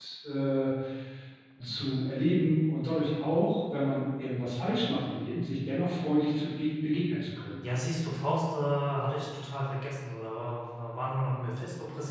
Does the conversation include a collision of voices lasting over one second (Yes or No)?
No